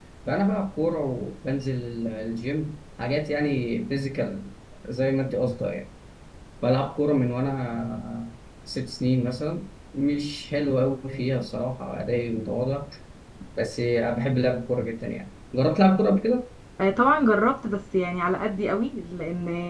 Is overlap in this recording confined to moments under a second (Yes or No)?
Yes